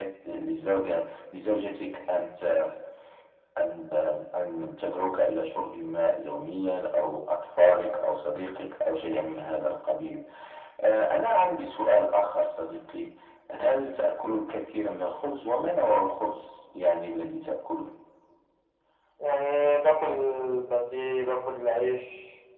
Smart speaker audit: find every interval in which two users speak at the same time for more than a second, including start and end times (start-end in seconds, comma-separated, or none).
none